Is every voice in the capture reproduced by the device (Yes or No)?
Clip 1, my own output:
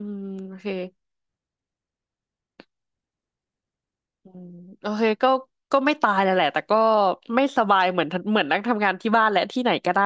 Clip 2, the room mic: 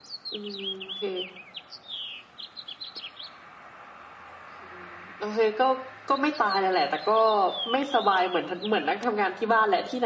Yes